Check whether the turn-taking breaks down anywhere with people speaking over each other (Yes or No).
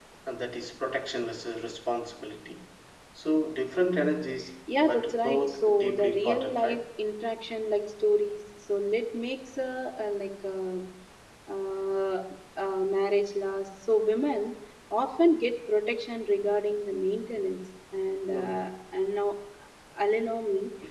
Yes